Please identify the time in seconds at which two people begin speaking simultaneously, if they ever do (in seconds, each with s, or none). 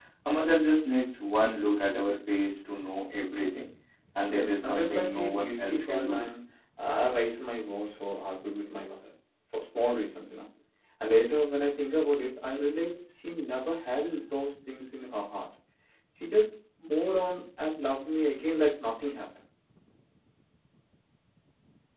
4.3 s